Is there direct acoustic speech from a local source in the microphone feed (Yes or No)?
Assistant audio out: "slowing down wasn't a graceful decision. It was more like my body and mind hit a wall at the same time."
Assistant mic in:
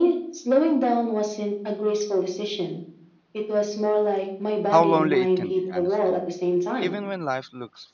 Yes